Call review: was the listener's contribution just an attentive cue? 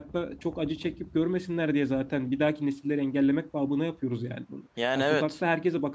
Yes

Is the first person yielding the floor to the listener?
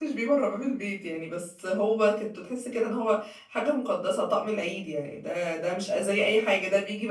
No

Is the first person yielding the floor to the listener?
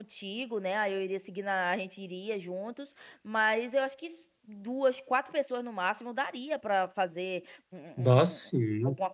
No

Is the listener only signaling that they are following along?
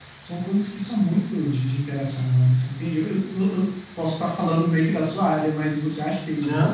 No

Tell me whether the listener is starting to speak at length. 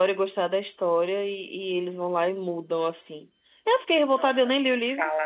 Yes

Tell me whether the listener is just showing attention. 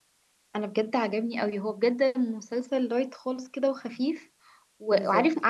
Yes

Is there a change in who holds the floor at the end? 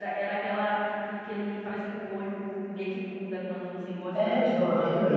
Yes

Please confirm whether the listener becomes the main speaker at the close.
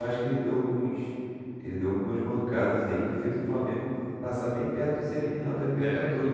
Yes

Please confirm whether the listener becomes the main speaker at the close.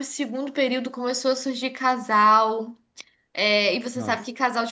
No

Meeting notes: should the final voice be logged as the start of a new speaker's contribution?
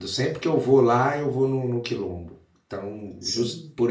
No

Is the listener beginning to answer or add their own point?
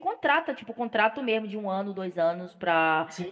Yes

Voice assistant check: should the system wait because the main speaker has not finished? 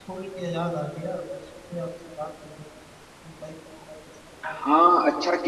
No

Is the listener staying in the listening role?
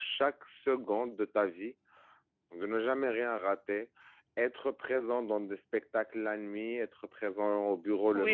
No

